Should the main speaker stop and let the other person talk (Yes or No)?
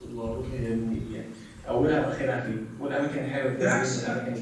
Yes